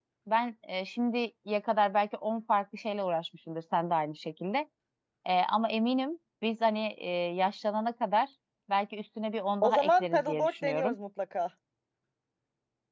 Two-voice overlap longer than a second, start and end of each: 9.6-11.0

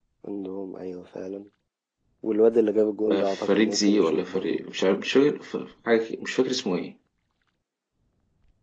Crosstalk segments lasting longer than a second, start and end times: 3.1-4.6

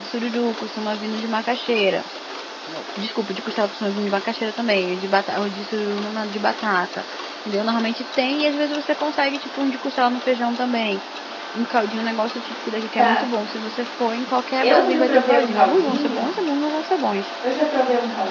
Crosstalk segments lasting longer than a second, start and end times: 14.6-16.3

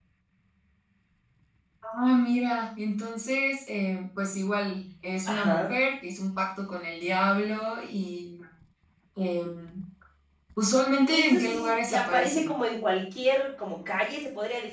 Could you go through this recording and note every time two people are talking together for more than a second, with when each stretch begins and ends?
11.1-12.5

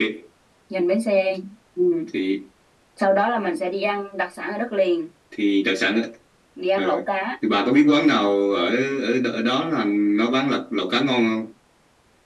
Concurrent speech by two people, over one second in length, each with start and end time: none

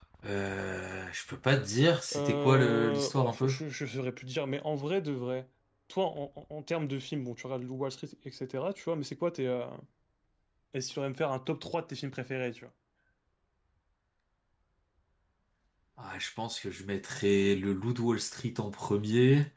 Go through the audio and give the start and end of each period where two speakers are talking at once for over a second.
2.1-3.5

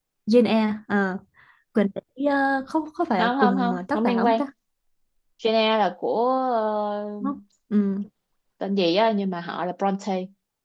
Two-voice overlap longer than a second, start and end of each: 3.2-4.4

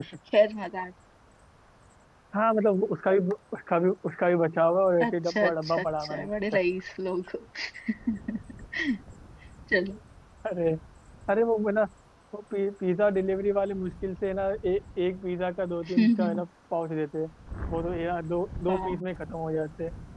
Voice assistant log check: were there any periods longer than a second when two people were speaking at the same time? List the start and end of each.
5.1-6.3

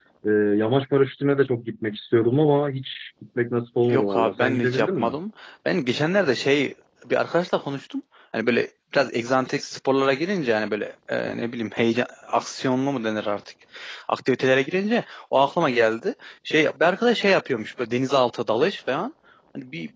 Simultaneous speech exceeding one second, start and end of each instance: 3.9-5.1

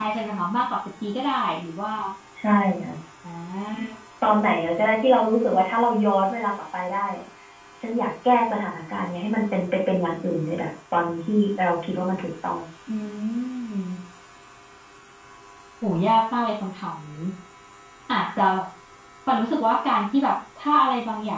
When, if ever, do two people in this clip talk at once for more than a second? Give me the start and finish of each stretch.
none

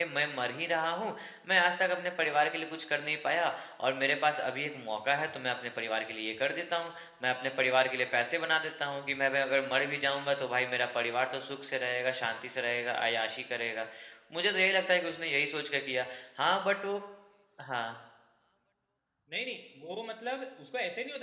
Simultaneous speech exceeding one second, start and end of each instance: none

